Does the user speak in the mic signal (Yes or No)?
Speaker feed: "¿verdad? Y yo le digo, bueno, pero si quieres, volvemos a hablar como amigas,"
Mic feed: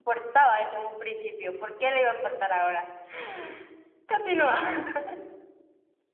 Yes